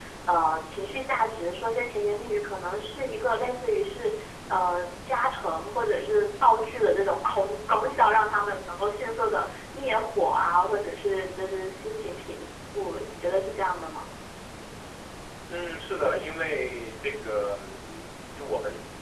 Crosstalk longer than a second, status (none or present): none